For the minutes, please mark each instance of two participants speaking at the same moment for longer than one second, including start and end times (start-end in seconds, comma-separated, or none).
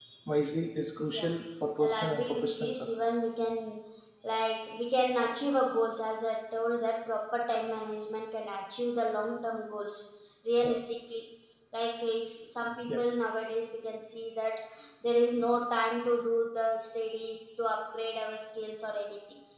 1.8-3.2